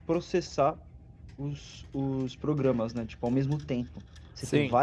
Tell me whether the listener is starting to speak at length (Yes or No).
No